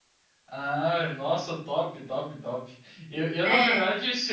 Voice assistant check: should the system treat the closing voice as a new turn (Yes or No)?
No